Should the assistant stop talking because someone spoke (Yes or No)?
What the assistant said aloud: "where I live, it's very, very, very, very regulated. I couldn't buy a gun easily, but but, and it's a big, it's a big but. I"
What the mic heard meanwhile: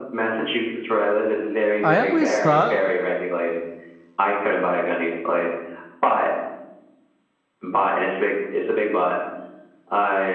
Yes